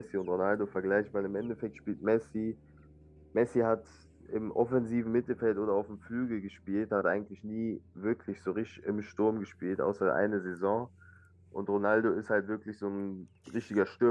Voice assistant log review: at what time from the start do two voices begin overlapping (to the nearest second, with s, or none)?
none